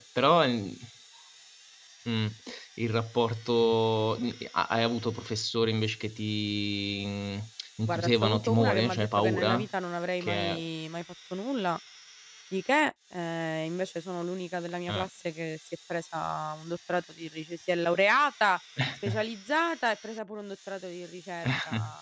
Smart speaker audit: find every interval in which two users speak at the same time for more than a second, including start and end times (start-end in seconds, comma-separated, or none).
7.9-9.7